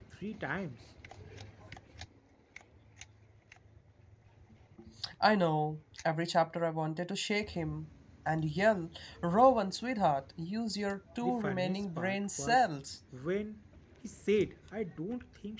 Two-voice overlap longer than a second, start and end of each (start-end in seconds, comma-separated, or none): 11.2-12.6